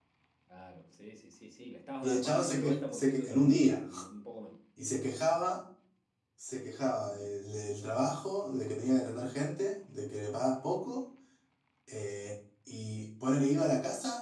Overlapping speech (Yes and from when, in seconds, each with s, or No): Yes, from 2.0 s